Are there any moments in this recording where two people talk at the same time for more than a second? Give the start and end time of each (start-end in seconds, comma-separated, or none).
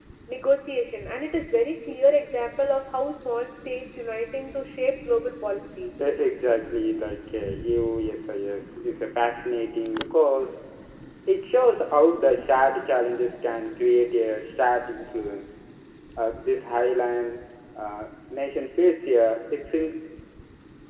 none